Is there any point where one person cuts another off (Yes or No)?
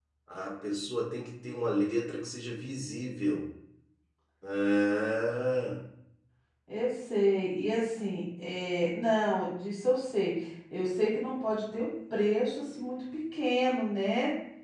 No